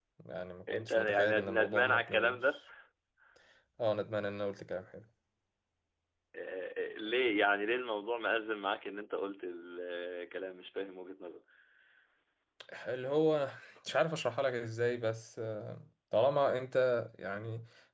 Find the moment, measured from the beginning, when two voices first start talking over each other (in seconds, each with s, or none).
0.7 s